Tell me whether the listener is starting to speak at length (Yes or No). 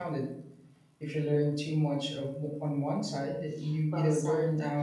Yes